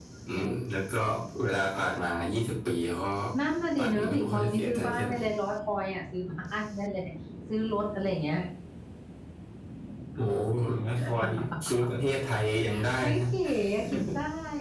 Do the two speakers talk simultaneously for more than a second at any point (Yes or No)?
Yes